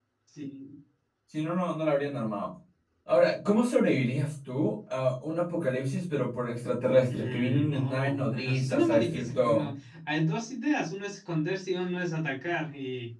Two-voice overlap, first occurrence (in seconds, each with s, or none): 7.1 s